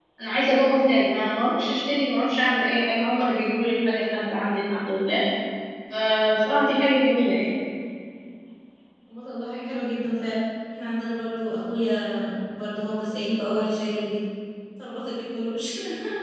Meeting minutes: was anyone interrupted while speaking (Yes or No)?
No